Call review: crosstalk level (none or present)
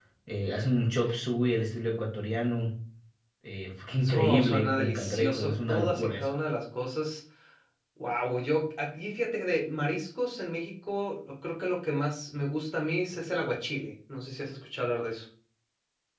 present